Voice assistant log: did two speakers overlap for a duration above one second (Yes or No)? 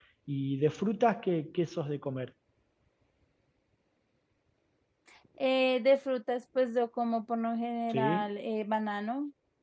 No